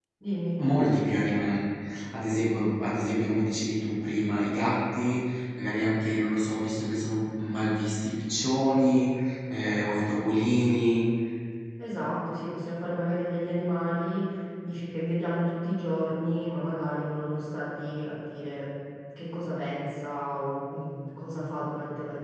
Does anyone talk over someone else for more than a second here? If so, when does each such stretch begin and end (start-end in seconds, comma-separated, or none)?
none